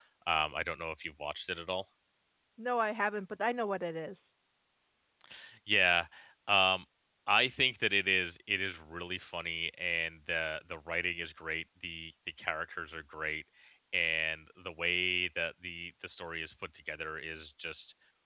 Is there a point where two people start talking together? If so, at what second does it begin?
none

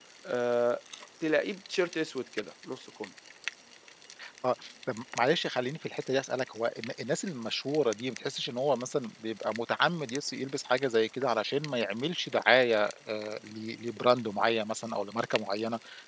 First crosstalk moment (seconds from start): none

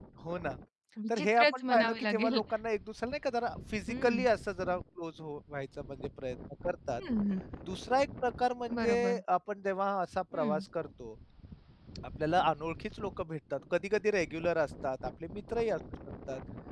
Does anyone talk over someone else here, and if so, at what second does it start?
1 s

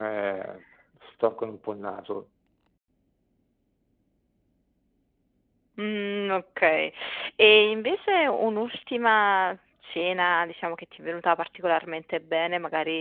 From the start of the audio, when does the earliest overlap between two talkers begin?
none

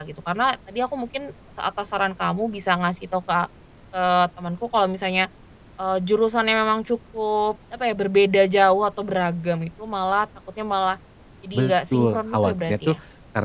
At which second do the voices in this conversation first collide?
12 s

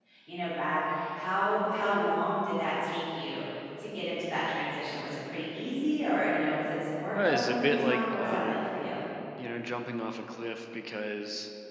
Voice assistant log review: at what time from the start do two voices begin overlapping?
7 s

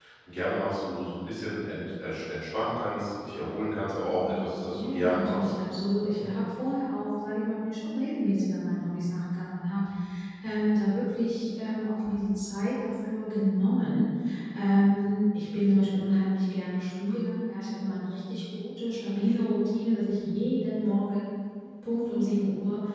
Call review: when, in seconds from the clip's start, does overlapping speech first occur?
4 s

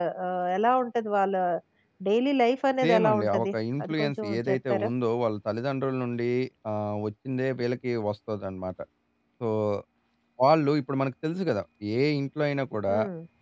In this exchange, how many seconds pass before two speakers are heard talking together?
3 s

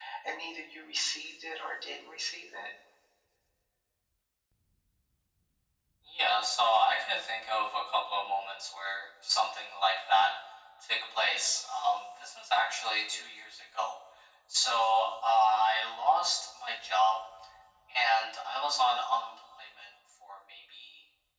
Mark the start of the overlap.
none

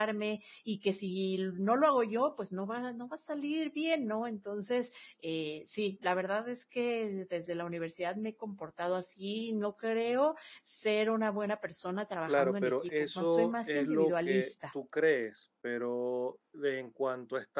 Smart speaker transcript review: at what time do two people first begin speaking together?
12 s

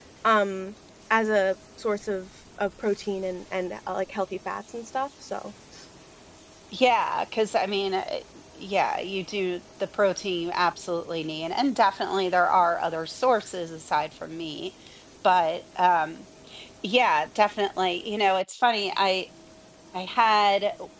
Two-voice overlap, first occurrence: none

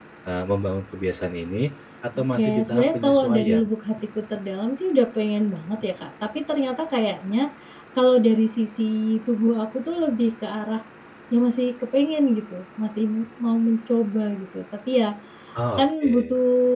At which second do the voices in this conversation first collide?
2 s

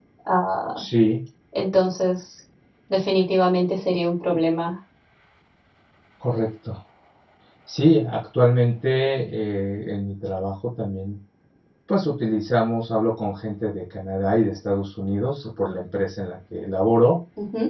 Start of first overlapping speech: none

